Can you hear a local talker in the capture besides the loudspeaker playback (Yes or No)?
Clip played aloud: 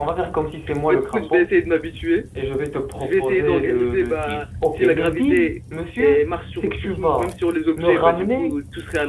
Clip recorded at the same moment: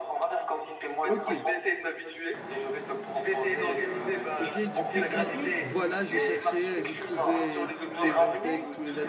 Yes